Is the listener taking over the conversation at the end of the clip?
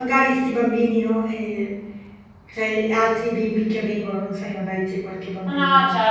Yes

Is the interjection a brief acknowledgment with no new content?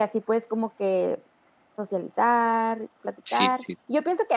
Yes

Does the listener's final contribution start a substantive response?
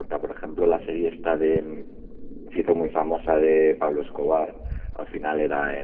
No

